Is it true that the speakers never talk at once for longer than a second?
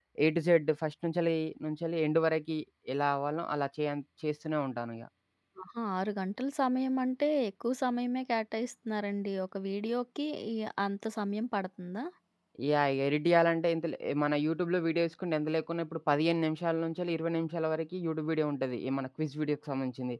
Yes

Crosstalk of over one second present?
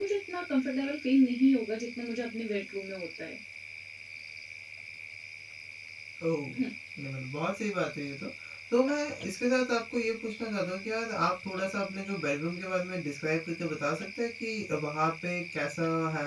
No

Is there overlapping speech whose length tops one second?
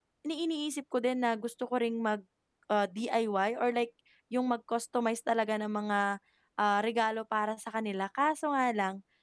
No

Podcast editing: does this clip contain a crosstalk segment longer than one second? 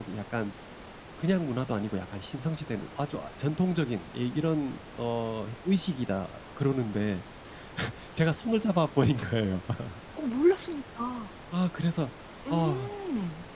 No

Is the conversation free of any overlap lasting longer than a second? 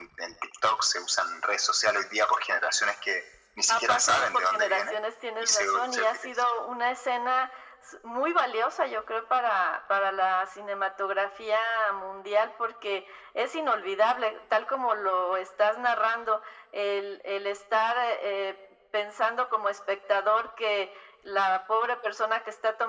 No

